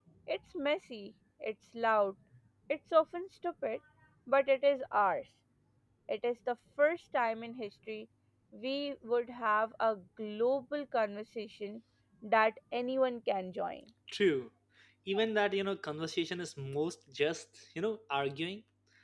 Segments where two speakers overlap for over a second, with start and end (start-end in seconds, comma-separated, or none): none